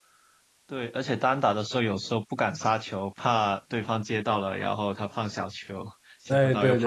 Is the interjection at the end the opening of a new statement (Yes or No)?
Yes